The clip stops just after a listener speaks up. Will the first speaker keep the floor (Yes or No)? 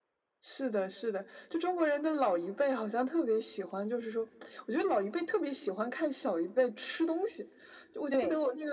Yes